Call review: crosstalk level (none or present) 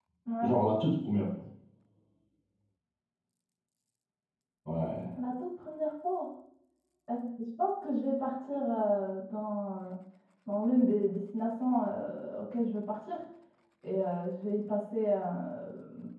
none